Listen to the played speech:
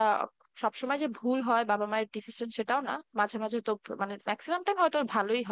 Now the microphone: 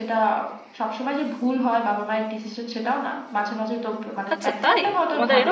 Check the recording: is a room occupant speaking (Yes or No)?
Yes